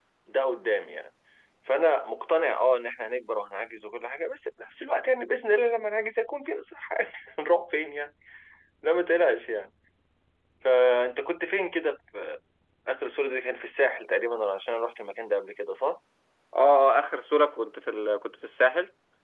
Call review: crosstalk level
none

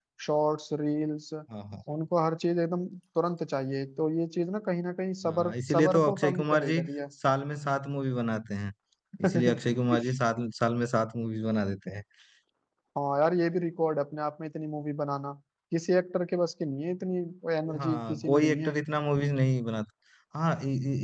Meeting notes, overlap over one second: present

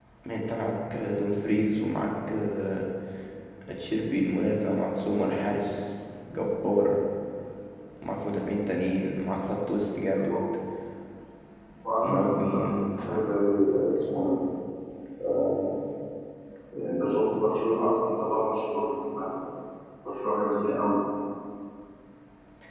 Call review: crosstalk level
present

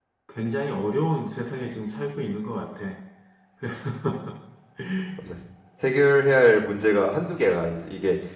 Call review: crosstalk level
none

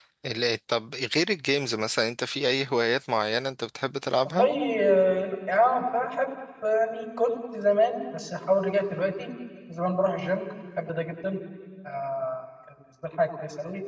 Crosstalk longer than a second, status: none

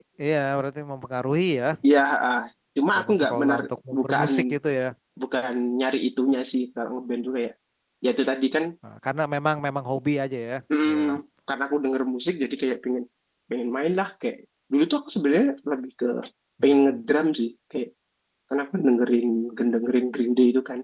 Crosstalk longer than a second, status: present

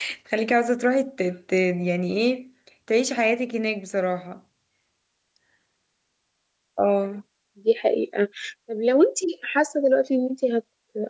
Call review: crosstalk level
none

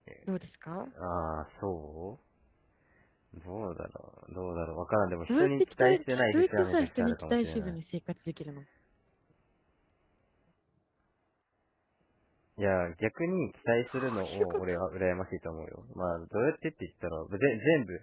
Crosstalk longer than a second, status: present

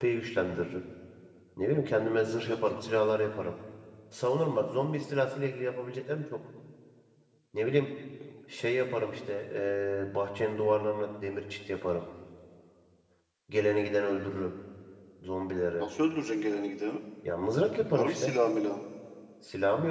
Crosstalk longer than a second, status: none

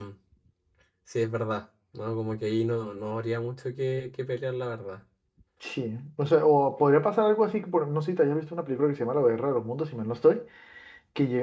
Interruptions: none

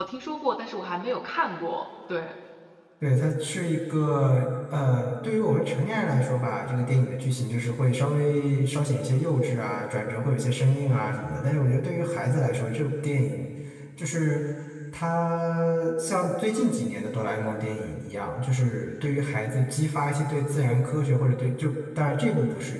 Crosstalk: none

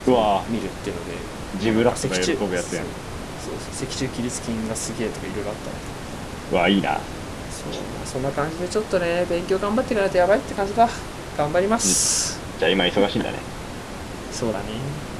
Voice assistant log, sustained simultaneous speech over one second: present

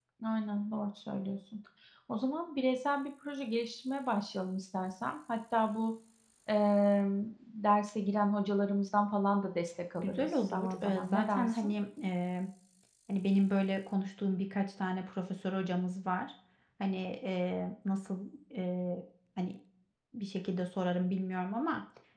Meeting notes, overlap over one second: present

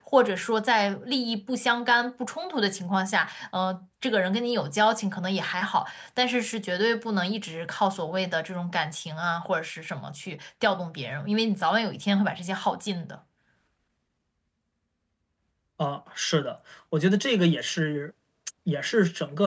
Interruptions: none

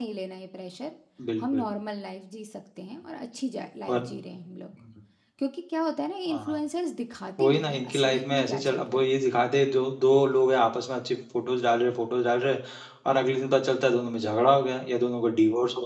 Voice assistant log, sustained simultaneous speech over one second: present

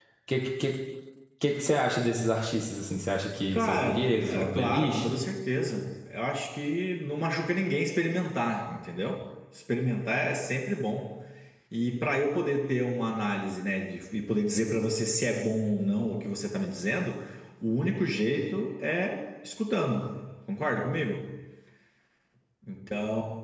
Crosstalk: present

